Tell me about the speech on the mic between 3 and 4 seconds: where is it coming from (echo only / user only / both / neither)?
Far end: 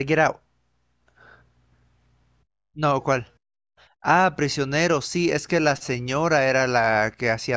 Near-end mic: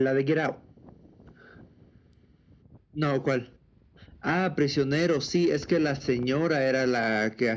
echo only